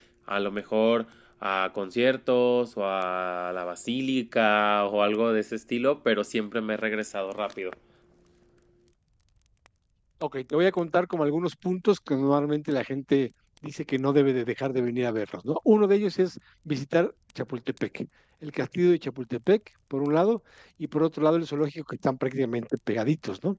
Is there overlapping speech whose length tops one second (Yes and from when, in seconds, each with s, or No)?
No